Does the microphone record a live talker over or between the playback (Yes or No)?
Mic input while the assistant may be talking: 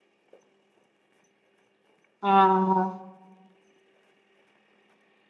Yes